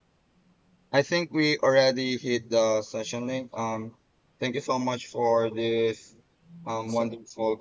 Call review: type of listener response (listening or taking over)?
listening